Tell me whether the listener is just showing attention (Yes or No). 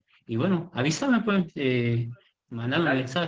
Yes